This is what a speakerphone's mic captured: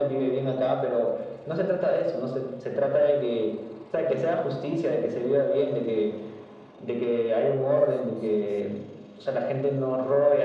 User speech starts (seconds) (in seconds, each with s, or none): none